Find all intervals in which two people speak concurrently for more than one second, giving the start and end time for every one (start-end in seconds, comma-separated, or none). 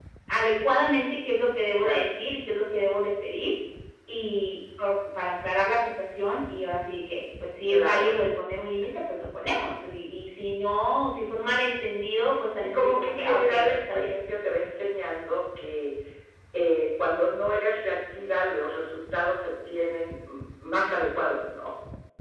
12.6-14.1